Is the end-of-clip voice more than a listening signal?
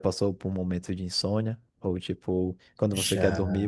No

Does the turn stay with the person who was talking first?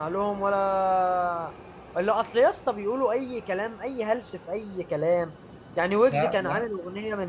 Yes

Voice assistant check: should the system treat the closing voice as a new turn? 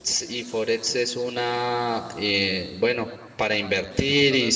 No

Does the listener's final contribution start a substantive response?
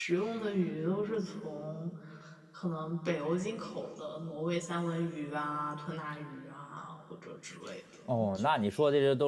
Yes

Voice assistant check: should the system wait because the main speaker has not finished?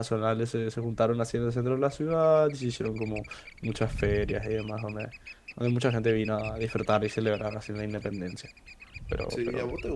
No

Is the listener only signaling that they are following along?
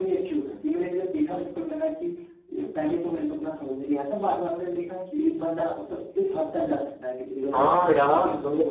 No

